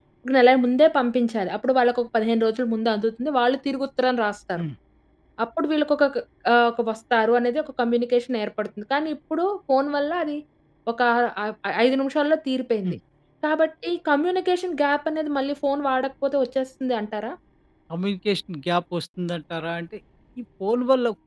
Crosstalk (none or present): none